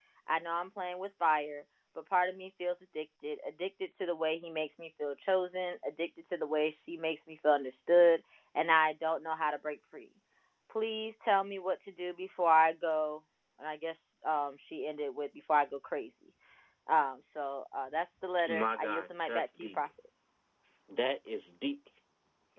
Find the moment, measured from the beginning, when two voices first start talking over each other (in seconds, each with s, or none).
18.4 s